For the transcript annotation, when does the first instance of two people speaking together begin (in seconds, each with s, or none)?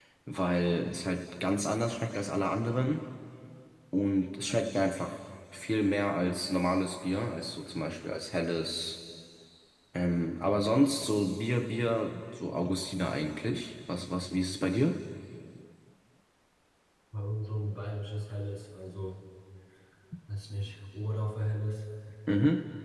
none